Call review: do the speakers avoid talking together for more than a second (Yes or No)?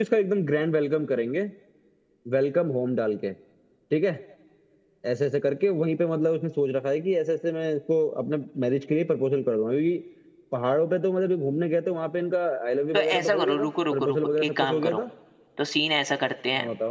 No